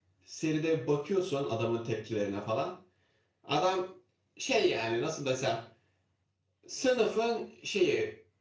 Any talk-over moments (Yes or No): No